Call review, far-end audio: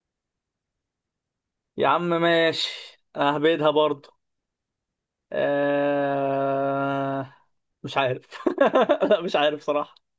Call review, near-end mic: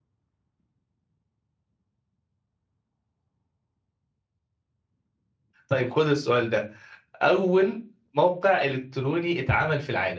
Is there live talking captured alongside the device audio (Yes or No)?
Yes